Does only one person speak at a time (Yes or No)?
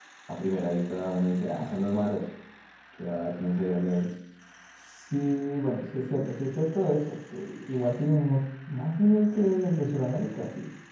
Yes